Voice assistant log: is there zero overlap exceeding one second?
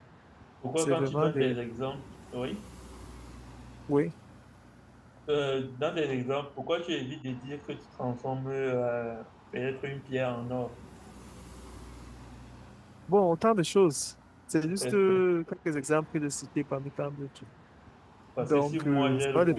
No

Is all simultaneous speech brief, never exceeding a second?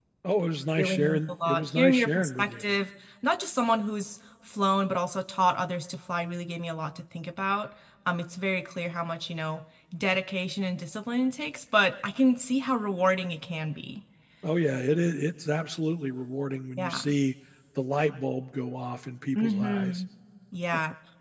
No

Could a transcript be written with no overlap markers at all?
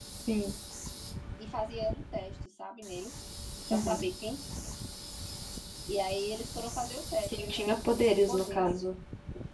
No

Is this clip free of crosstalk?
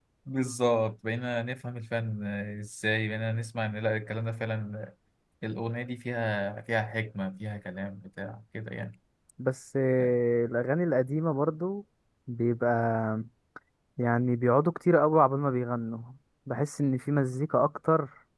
Yes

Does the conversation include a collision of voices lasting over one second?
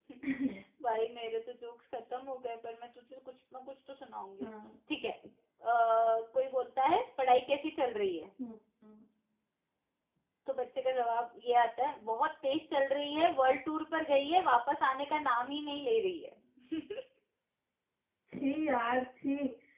No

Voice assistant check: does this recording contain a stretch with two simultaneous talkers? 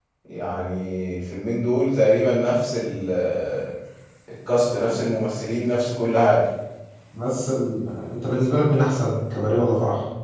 No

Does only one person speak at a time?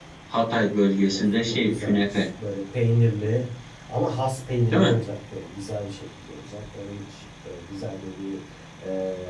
No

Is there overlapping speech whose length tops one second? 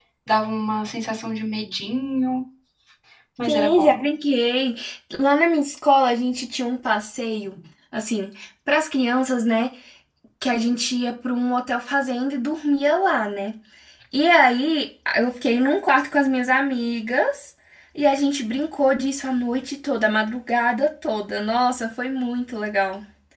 No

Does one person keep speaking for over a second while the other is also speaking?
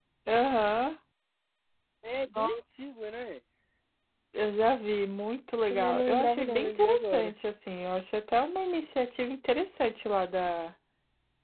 Yes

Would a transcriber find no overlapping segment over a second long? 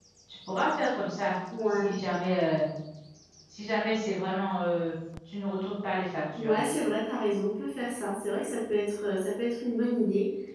Yes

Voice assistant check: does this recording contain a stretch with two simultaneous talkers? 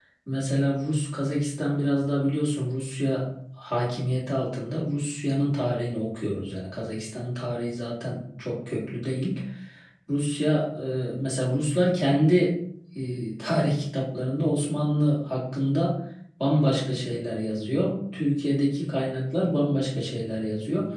No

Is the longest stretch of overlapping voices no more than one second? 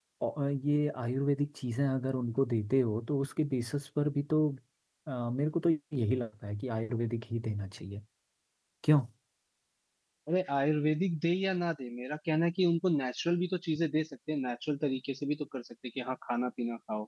Yes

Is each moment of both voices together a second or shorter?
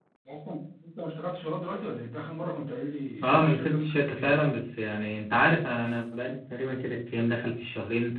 No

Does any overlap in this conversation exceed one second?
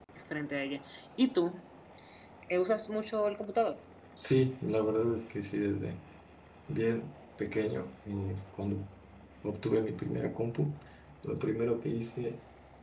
No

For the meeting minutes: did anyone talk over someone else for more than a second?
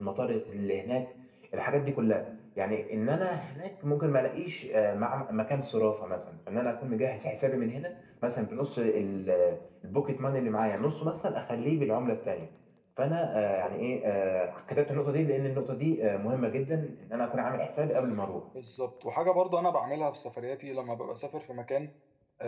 No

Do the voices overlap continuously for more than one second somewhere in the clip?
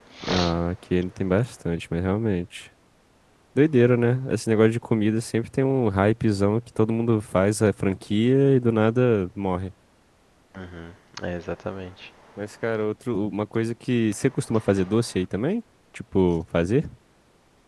No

